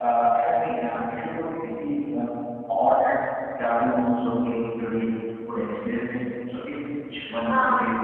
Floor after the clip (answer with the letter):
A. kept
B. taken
B